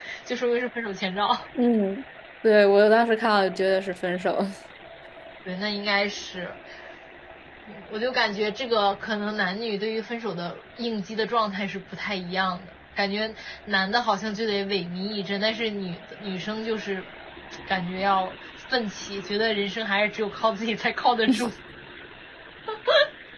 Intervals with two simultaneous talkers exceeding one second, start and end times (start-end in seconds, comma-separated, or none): none